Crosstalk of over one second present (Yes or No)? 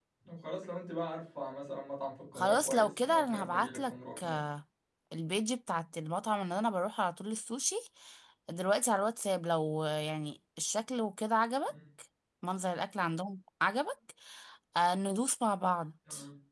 Yes